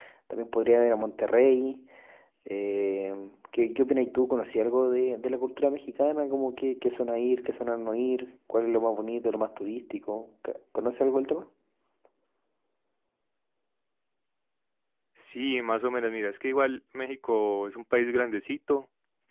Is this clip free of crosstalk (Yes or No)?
Yes